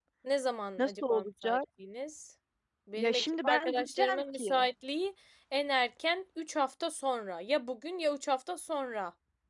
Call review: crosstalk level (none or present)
present